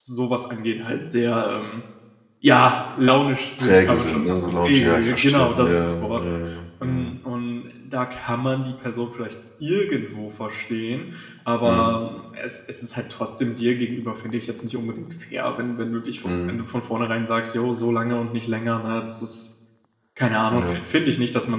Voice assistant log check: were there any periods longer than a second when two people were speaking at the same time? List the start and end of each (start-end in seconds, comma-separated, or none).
3.6-6.2